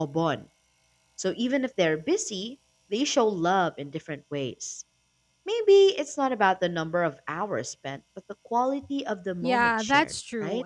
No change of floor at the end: No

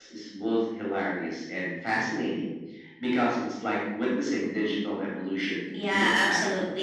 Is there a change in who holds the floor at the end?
Yes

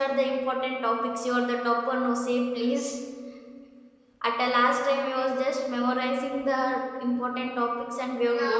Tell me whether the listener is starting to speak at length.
Yes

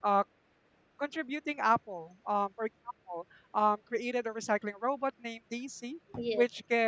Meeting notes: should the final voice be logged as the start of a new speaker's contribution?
No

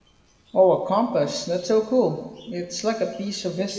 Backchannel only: No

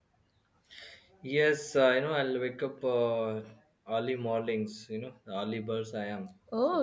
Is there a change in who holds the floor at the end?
Yes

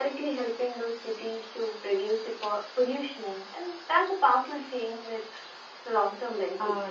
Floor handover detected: Yes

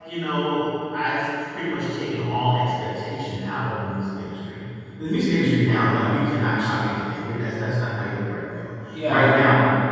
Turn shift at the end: No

